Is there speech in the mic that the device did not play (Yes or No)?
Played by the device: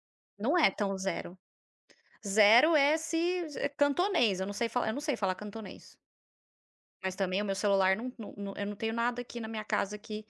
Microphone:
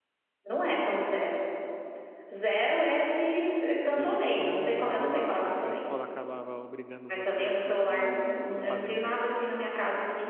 Yes